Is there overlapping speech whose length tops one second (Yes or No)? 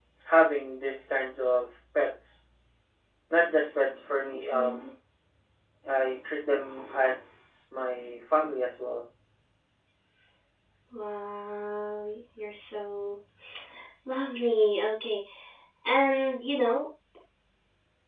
No